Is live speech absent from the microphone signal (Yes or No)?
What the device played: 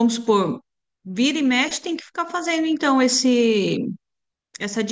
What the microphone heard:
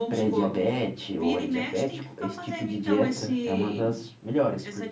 No